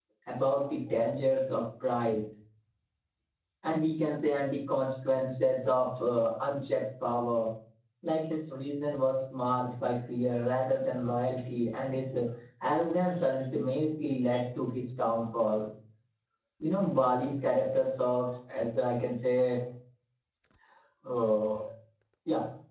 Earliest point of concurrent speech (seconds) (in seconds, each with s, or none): none